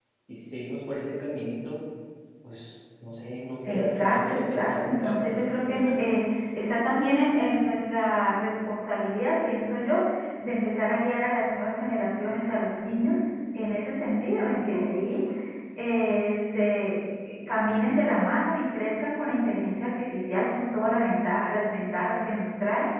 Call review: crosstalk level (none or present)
present